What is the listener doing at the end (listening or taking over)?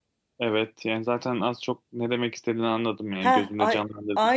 taking over